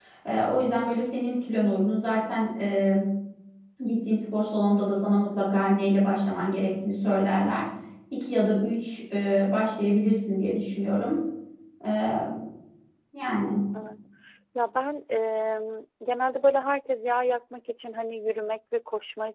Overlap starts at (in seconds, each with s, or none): none